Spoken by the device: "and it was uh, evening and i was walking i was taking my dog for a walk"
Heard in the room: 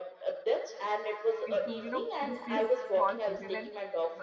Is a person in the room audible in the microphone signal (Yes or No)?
Yes